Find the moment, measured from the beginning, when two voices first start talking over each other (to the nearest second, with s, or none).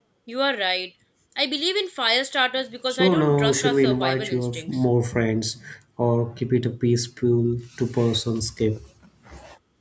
3 s